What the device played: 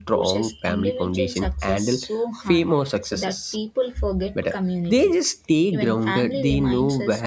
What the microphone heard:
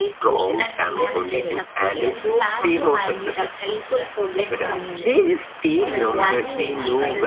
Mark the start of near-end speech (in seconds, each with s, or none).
0.6 s